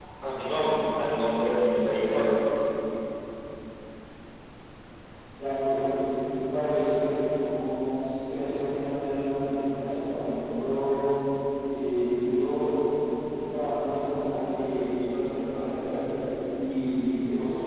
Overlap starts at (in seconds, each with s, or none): none